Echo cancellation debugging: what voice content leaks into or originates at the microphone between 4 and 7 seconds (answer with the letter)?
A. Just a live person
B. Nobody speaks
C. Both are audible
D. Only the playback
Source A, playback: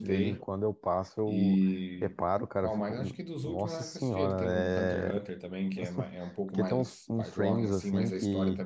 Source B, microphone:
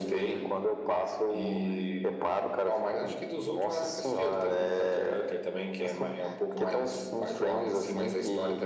D